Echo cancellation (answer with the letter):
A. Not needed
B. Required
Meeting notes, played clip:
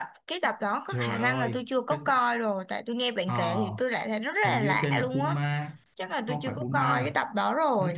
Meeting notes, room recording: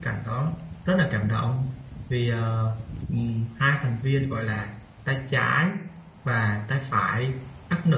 A